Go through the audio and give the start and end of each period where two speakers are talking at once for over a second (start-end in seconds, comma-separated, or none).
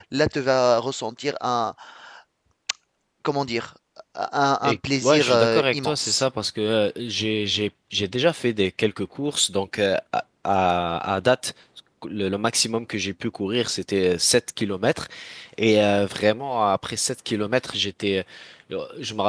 4.6-6.2